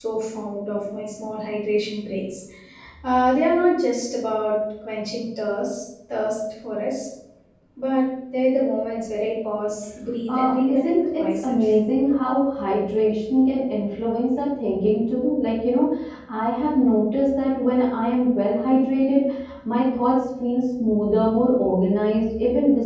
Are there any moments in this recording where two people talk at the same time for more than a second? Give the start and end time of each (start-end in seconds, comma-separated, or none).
10.3-11.5